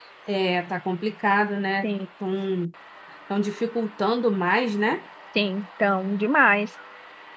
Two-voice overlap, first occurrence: none

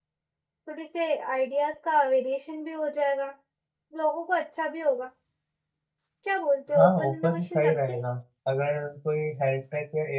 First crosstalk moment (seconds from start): 6.7 s

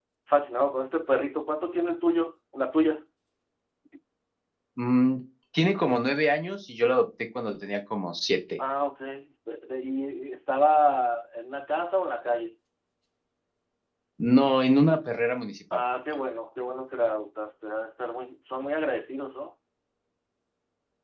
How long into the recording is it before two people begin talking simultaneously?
none

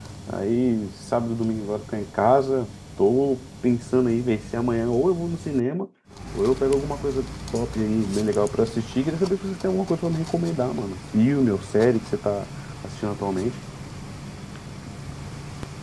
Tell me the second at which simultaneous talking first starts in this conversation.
none

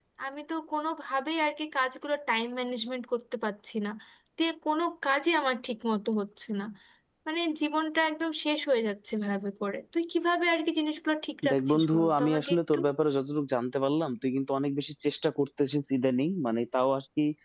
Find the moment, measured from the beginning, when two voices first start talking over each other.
11.4 s

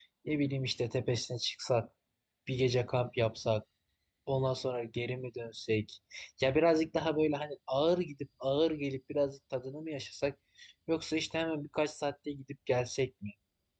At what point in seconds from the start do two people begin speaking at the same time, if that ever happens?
none

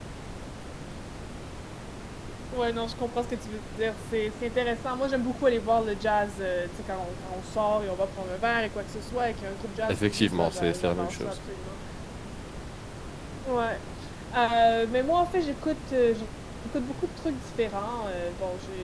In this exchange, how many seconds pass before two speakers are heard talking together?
9.9 s

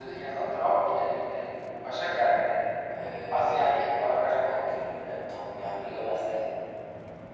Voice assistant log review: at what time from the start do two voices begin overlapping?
3.3 s

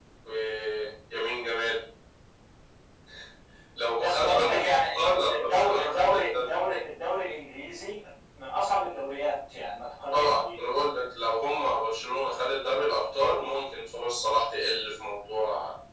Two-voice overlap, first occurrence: 4.0 s

